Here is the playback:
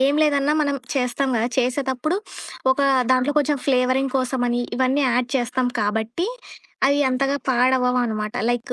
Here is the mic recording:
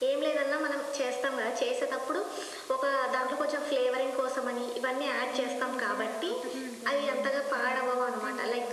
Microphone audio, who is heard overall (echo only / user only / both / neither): both